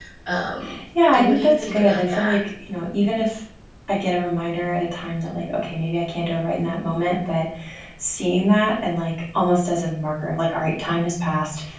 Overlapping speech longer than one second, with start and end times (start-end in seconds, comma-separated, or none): 1.1-2.4